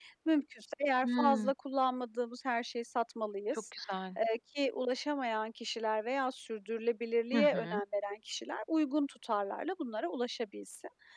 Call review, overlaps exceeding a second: none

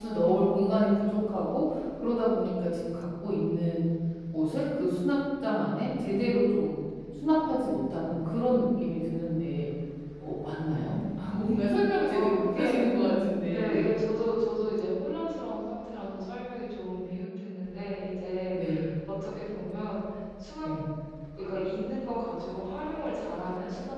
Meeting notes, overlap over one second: present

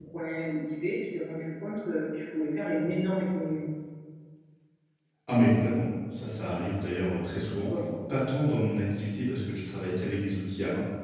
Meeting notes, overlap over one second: none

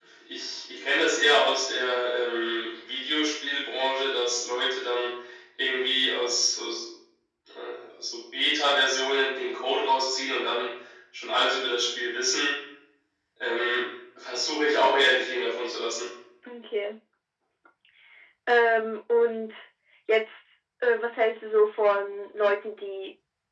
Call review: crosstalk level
none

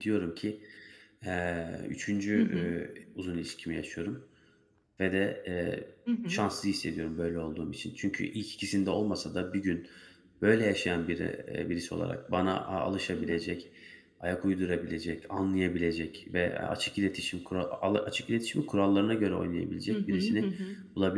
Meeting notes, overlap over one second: none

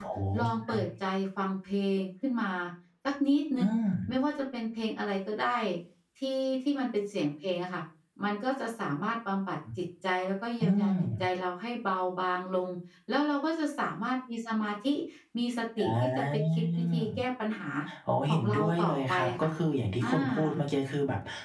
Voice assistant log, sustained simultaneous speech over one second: present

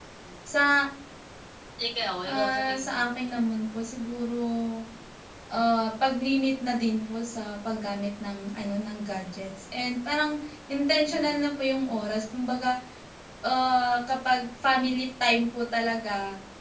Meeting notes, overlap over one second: present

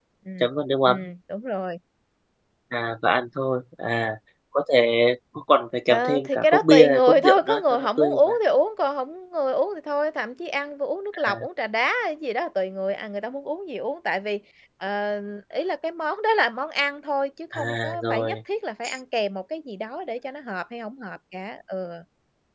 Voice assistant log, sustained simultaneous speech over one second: present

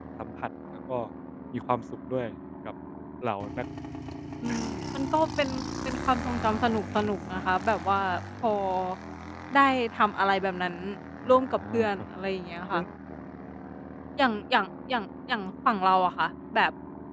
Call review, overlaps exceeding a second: none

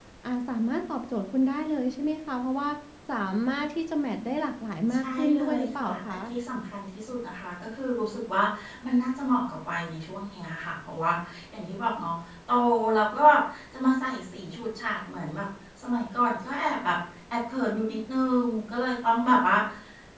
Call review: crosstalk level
present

